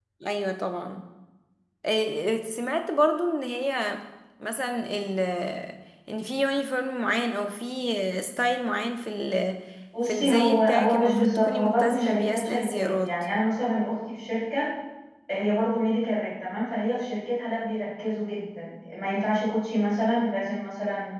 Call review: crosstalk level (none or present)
present